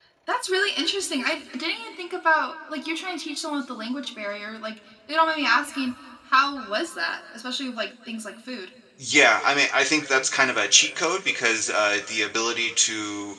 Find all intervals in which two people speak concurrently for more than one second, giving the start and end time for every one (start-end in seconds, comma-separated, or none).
none